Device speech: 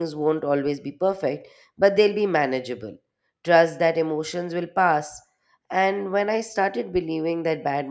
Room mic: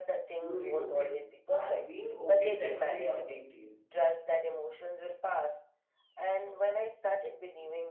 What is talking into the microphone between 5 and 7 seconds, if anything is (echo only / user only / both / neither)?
echo only